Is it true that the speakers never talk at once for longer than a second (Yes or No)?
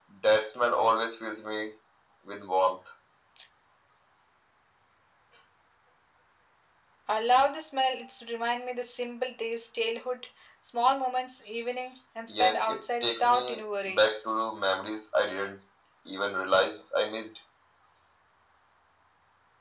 No